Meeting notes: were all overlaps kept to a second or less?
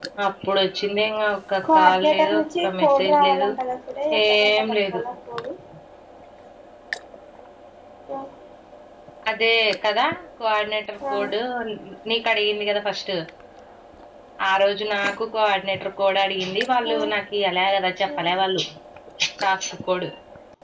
No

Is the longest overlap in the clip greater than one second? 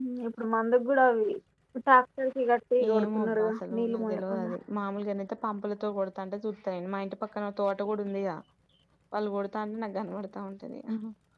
Yes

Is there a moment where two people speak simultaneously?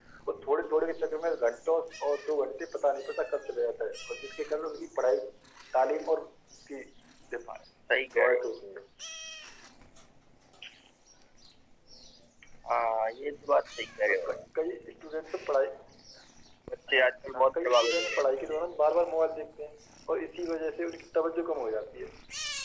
Yes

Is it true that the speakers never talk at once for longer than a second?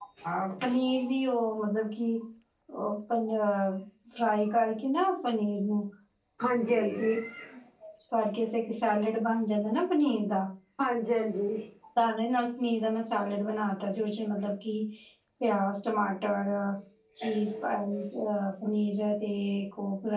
Yes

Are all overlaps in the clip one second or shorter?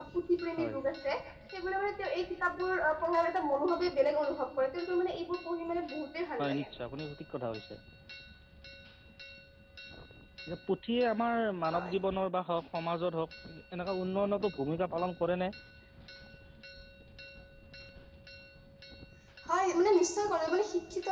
Yes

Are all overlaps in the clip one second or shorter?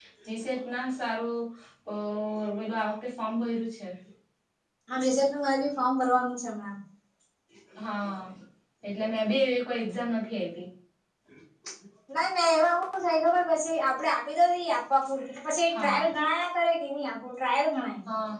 Yes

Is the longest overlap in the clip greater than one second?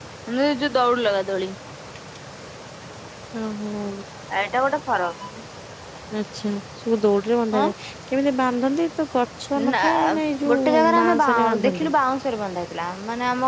Yes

